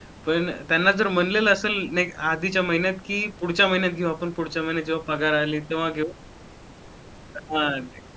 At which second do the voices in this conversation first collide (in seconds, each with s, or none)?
none